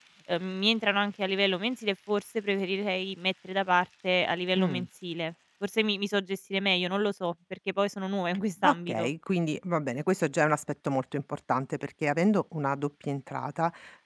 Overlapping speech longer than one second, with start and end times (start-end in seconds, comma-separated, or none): none